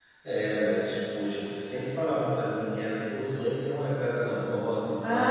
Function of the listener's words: taking over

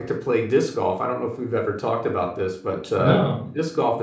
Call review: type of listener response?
listening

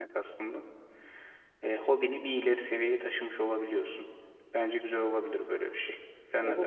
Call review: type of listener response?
taking over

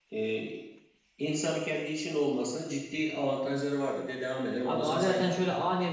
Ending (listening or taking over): taking over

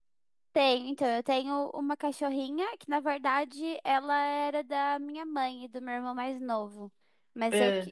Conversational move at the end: listening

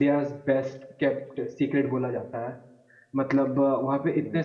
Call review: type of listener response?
listening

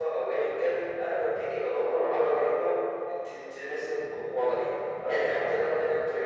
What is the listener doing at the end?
listening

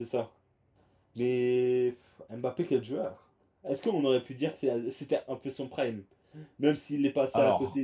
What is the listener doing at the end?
listening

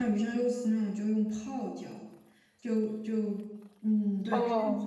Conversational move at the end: listening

